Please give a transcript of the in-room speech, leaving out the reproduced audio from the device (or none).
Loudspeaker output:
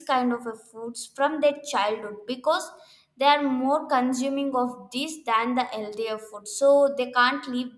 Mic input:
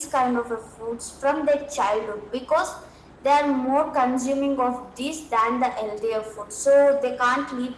none